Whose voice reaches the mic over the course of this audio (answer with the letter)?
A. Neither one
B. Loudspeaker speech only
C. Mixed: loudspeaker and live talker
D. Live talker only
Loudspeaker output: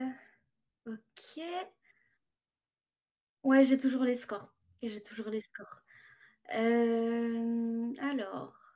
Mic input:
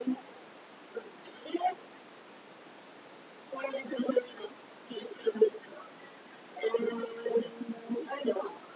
B